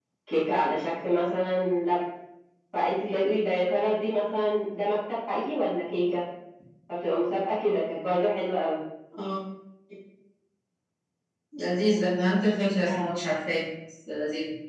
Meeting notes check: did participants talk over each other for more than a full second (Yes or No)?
No